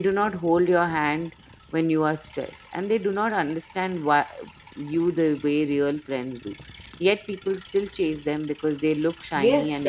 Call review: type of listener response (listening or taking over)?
taking over